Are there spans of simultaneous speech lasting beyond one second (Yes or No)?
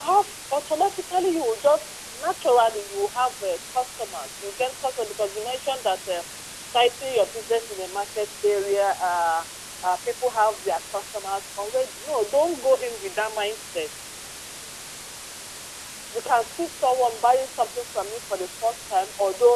No